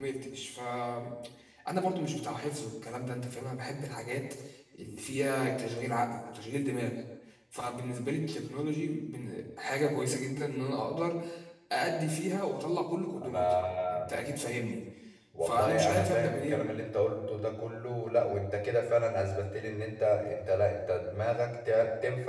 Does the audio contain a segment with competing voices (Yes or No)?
Yes